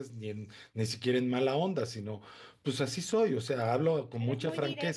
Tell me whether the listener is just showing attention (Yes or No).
No